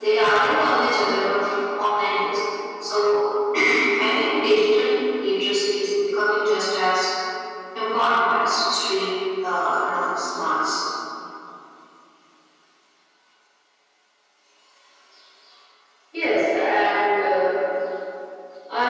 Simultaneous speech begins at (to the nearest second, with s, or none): none